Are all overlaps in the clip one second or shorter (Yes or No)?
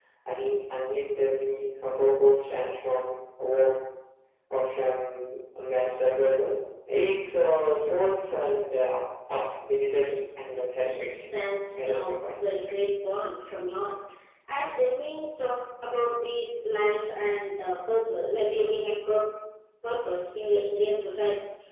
No